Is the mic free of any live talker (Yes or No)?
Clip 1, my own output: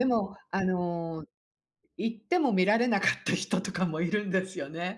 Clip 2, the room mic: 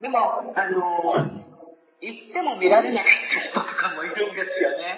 No